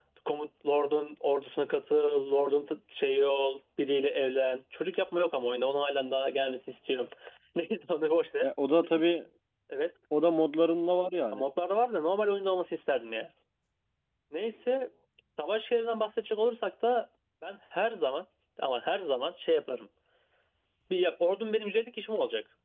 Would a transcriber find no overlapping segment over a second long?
Yes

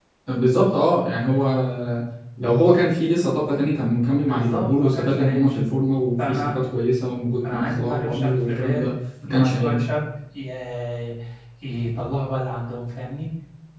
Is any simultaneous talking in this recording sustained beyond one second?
Yes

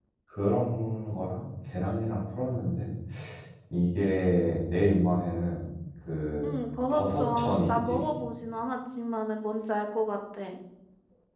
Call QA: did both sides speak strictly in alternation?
No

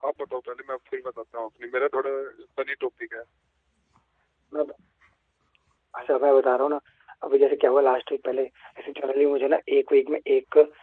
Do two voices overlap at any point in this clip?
No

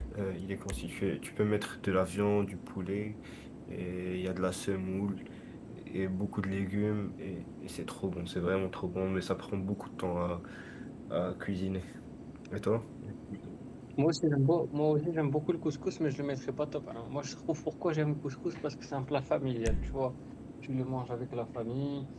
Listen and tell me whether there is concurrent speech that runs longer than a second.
No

